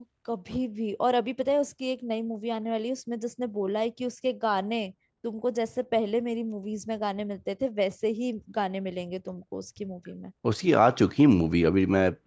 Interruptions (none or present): none